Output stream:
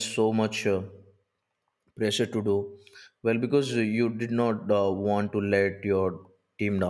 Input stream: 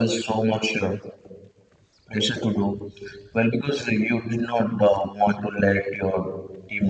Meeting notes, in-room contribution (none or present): none